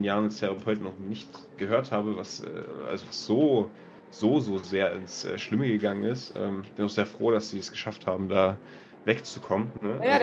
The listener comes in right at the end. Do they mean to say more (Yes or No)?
Yes